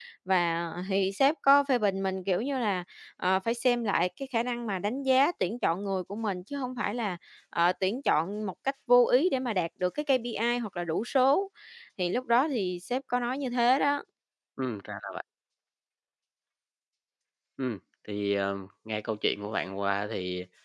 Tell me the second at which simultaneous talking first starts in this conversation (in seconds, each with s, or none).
none